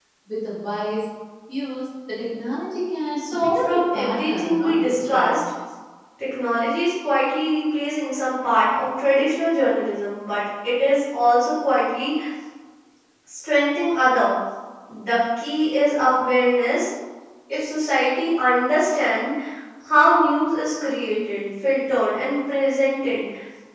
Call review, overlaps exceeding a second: present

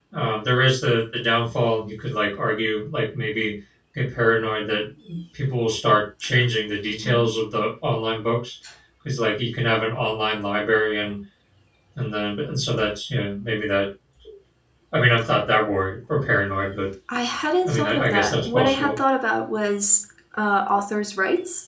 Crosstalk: present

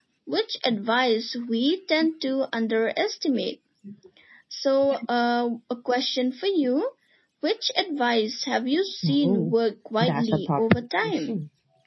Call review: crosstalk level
present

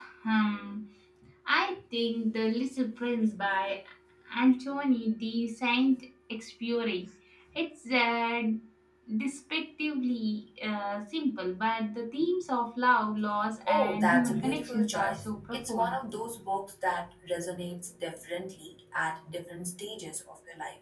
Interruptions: present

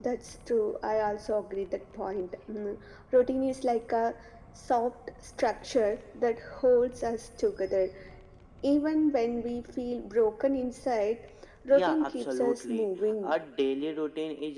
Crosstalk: present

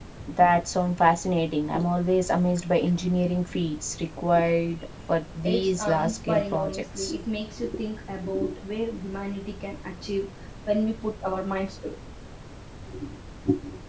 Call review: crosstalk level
present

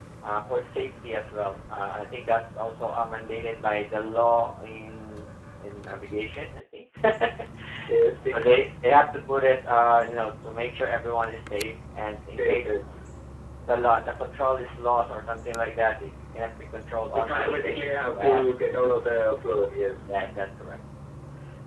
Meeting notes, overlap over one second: present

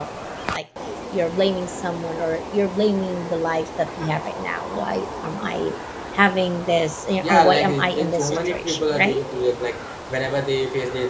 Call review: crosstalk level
present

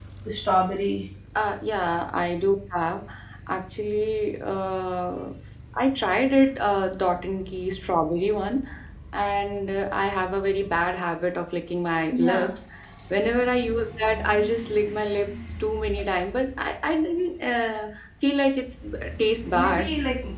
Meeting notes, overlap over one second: none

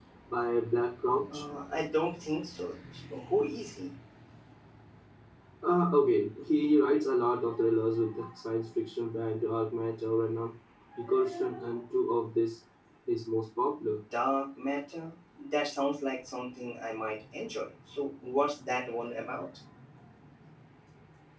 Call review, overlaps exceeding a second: none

